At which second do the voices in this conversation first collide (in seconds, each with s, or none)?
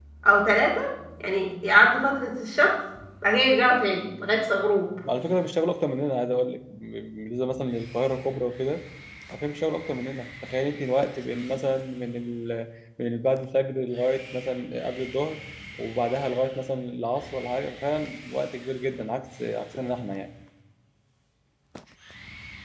none